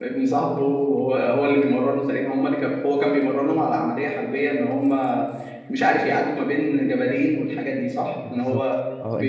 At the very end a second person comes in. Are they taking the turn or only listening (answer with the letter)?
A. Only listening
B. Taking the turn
B